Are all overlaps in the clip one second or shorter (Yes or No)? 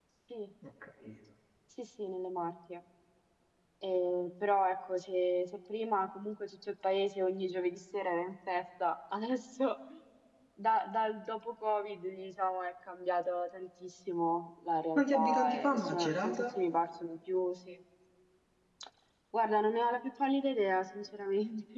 No